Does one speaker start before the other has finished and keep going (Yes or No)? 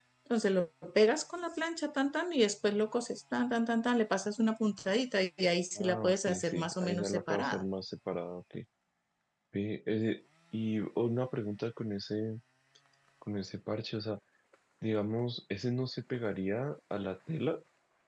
Yes